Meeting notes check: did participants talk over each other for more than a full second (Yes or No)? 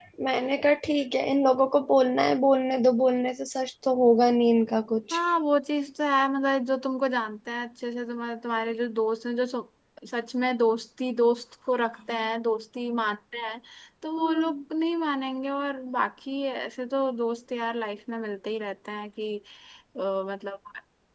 No